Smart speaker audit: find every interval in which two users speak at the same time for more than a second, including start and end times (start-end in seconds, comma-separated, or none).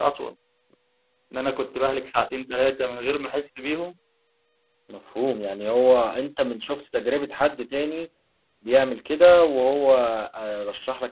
none